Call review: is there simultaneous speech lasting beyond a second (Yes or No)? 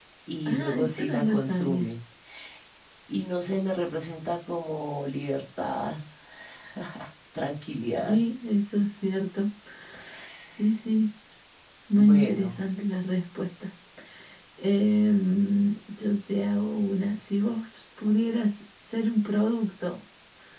Yes